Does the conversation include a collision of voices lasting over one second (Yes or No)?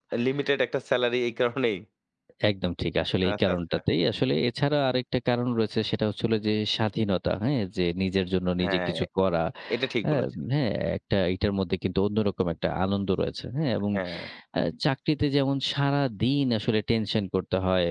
No